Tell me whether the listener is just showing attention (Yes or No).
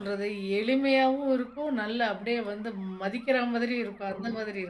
No